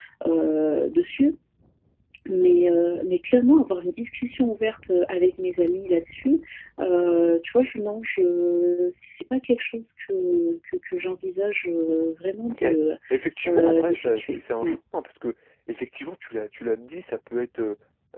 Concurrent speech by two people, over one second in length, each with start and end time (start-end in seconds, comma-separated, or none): 13.4-14.8